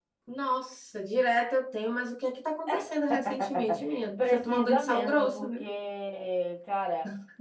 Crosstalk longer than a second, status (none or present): present